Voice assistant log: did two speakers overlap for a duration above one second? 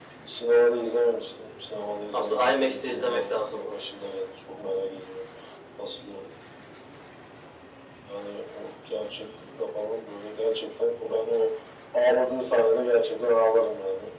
Yes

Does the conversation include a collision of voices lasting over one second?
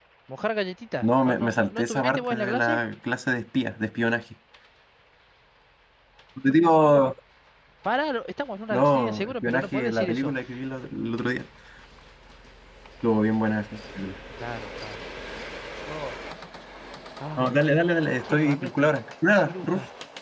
Yes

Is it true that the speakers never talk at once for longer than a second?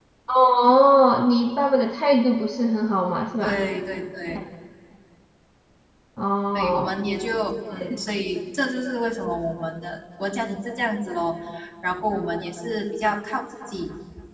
Yes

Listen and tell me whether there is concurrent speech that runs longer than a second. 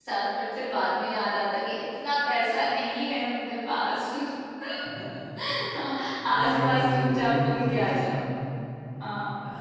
Yes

